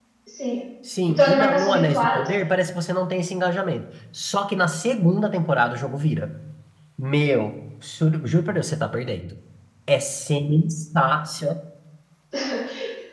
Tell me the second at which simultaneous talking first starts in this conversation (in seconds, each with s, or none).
1.1 s